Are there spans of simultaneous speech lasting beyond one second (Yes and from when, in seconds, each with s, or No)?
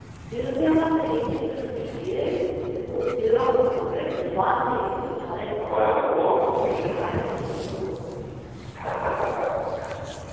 Yes, from 5.3 s